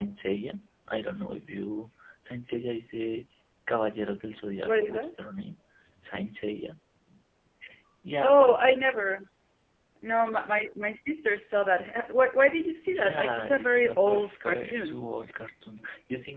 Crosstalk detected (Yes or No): Yes